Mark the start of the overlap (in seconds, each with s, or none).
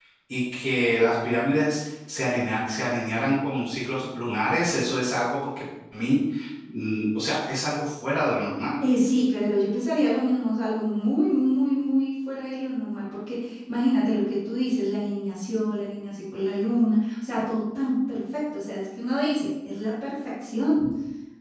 none